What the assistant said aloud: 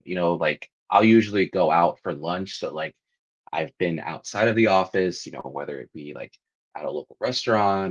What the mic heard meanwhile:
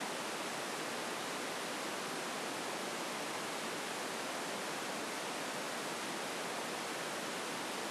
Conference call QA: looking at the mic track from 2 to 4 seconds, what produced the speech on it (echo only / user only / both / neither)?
neither